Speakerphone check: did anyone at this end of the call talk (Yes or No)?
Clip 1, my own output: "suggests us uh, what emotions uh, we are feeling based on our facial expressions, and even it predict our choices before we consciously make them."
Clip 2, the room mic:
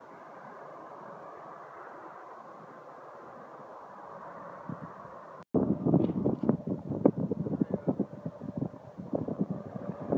No